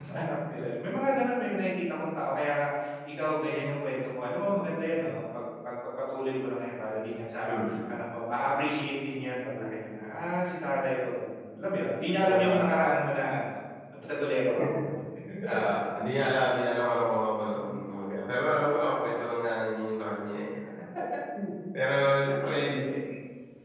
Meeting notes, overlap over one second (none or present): none